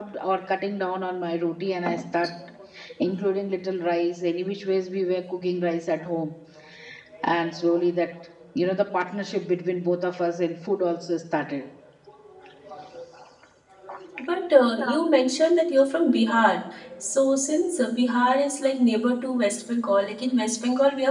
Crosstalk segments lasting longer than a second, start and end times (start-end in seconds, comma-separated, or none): none